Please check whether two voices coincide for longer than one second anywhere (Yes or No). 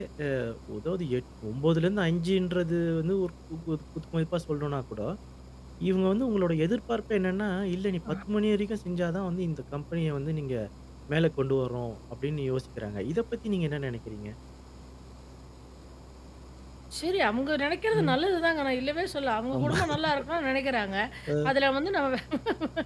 No